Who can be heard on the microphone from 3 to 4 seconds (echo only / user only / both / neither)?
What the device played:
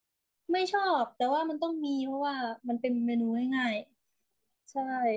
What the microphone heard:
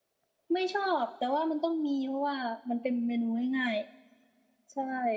echo only